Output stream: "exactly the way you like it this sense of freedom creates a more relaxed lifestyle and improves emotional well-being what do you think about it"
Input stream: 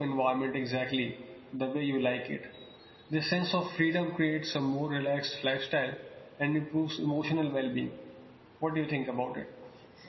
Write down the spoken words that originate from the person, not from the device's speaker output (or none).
none